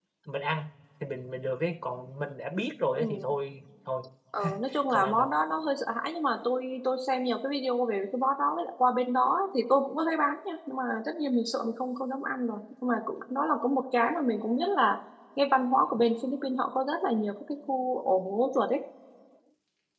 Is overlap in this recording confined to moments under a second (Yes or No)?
Yes